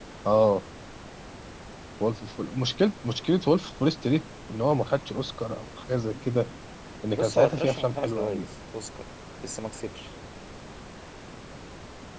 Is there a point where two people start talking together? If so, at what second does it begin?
7.1 s

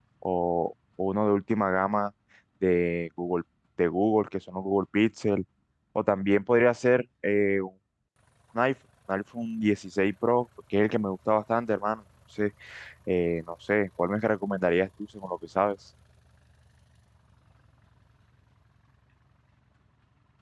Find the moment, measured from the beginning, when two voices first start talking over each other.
none

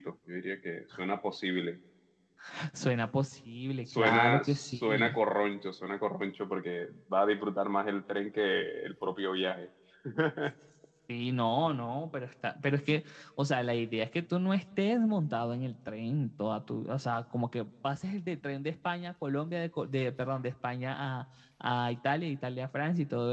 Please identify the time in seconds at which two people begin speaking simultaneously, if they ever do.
3.9 s

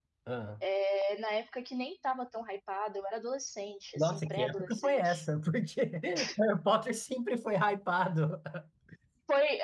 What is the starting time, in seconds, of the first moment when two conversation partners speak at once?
4.0 s

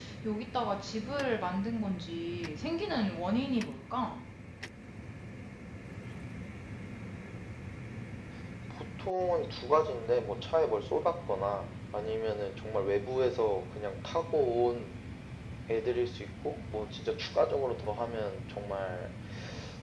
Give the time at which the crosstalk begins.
none

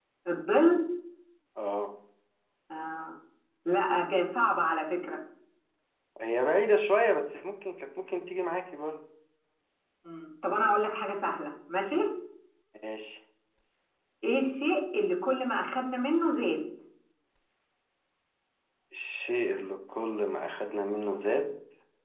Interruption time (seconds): none

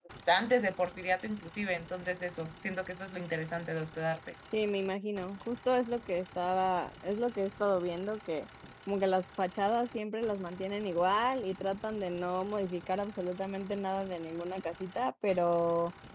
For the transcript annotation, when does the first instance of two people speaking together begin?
none

